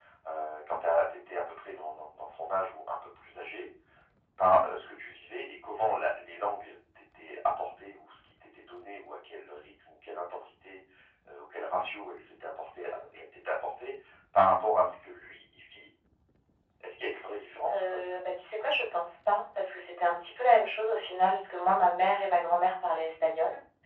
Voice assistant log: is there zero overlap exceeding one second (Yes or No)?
Yes